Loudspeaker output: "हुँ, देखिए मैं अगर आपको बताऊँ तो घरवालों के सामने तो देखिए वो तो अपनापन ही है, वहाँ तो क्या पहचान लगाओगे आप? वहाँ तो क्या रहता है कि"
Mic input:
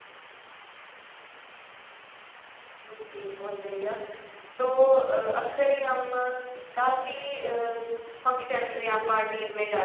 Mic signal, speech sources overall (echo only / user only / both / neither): user only